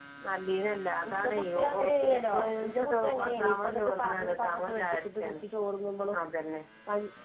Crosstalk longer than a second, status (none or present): present